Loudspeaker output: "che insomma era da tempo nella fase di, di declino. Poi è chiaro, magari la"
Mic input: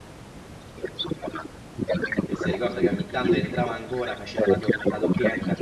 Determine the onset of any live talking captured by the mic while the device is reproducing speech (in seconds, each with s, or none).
2.3 s